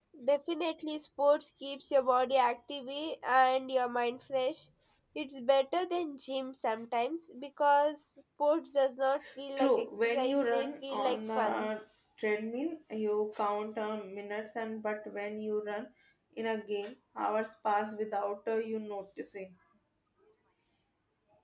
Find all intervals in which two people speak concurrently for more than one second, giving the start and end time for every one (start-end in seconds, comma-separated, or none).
9.6-11.7